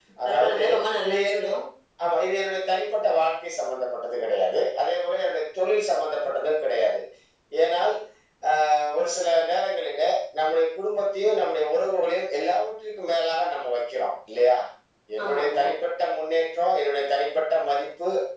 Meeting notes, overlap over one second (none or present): none